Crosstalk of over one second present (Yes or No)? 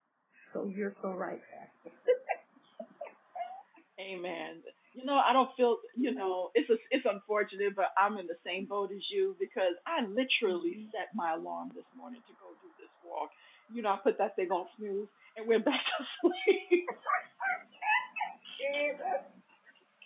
No